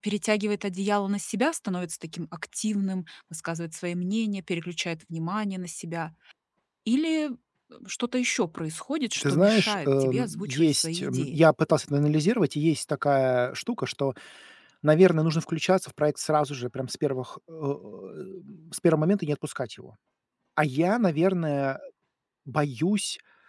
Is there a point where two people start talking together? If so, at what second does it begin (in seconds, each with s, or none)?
9.2 s